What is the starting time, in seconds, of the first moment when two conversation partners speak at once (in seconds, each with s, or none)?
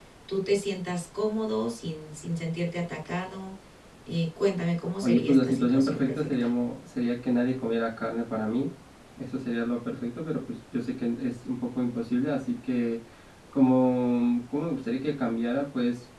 5.0 s